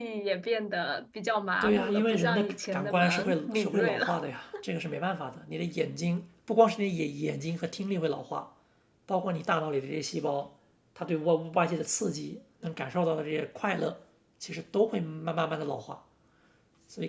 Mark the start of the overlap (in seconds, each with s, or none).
1.6 s